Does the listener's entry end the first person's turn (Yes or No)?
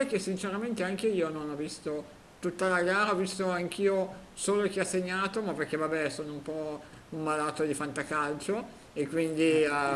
No